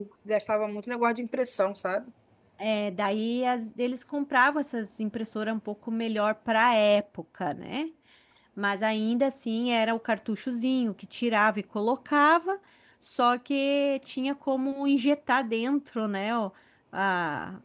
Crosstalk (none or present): none